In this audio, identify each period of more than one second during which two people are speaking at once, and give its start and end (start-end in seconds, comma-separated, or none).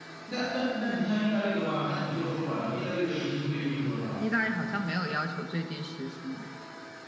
none